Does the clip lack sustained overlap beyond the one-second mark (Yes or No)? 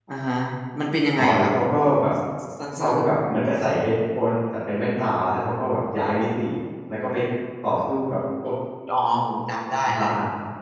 Yes